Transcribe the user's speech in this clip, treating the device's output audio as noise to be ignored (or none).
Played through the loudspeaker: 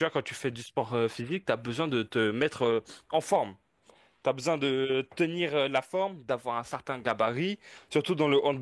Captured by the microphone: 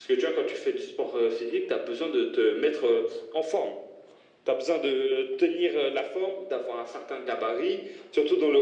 none